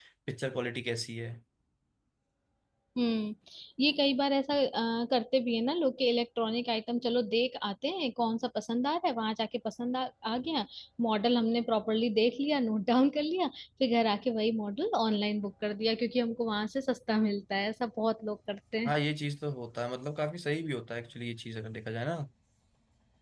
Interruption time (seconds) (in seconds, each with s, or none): none